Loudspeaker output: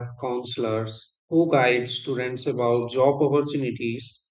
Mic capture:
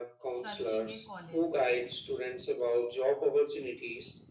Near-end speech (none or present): present